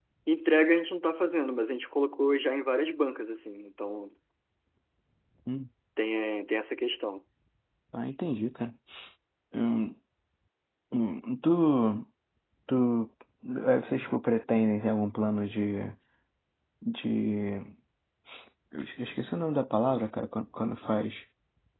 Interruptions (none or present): none